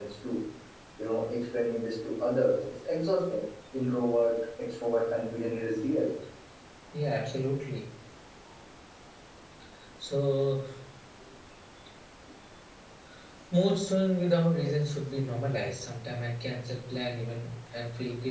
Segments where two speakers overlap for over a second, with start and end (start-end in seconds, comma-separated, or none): none